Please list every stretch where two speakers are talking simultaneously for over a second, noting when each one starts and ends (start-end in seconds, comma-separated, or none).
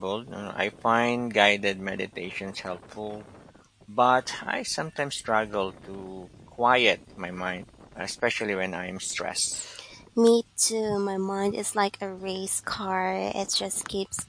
none